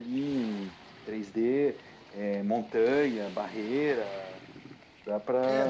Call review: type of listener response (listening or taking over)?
taking over